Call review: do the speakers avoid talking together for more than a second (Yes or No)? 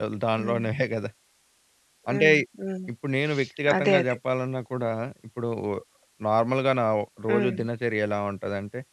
Yes